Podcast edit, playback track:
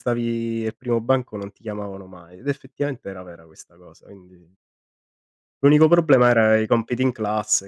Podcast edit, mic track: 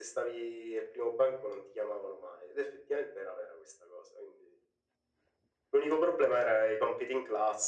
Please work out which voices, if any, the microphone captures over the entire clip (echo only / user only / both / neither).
echo only